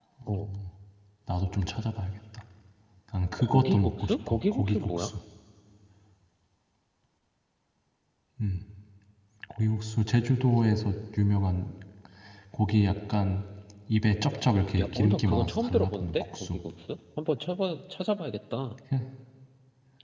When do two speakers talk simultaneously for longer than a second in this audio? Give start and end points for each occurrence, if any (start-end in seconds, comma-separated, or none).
3.4-5.1, 14.8-16.6